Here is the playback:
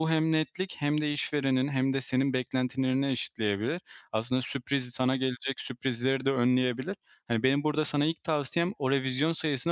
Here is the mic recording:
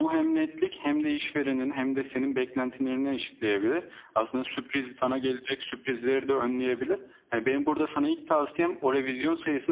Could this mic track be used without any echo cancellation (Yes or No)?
No